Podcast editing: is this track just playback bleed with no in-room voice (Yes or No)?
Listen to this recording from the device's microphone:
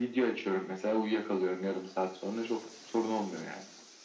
Yes